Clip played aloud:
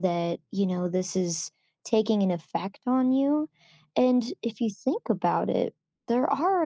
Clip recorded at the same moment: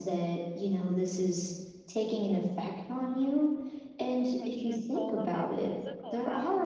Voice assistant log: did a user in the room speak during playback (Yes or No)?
Yes